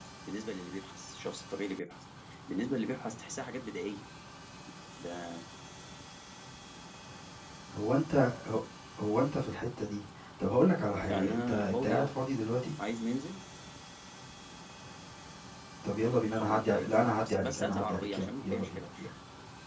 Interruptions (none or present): present